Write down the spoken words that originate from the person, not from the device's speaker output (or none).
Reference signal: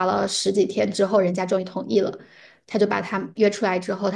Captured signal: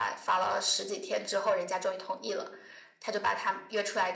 none